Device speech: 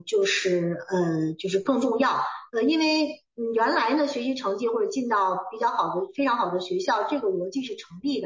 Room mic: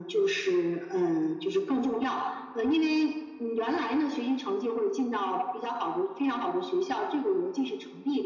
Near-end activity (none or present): none